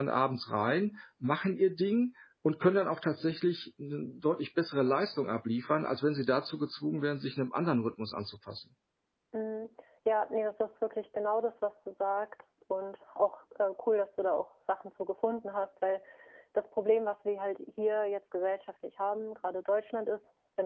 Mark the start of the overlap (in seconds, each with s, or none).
none